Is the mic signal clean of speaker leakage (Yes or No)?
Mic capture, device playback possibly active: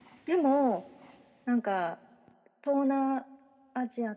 No